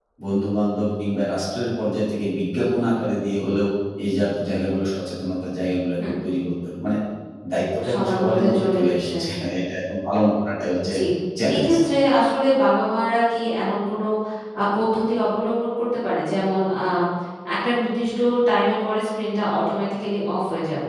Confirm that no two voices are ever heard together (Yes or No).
No